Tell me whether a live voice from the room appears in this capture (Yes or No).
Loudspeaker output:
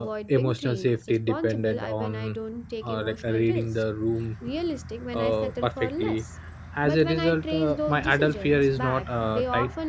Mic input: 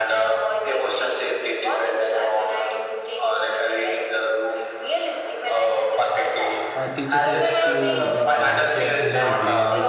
Yes